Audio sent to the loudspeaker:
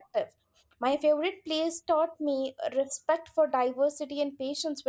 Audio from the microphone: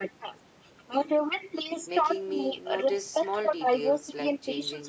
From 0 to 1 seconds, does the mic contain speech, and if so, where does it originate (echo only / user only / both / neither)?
echo only